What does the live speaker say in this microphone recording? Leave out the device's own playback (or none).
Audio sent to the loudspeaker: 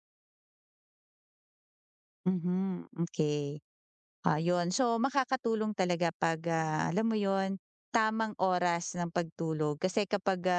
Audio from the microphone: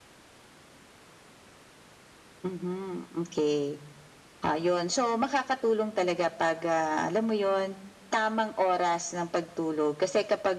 none